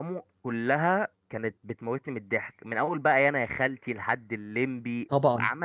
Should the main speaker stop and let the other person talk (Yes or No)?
No